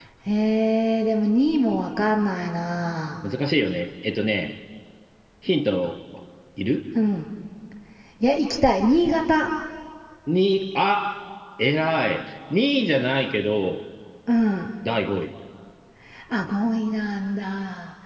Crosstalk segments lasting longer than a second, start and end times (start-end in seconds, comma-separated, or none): none